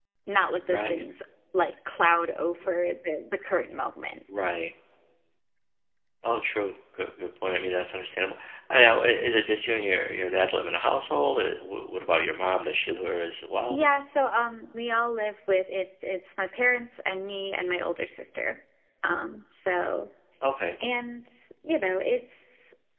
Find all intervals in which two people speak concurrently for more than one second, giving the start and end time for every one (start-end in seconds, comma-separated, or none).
none